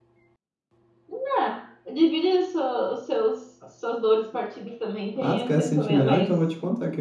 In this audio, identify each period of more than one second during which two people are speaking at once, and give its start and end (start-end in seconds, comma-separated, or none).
5.2-6.4